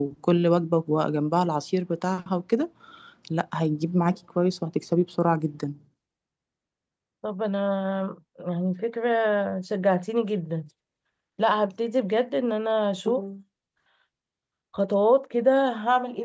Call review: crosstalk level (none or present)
none